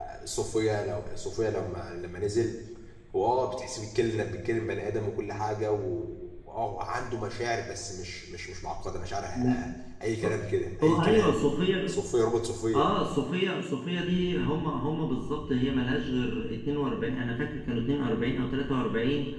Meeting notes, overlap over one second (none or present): none